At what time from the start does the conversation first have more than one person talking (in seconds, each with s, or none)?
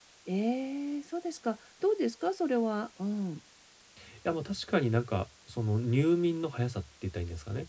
none